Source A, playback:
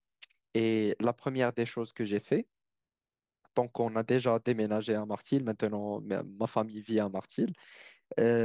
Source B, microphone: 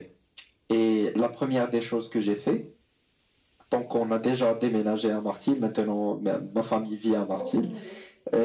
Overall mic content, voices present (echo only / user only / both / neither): both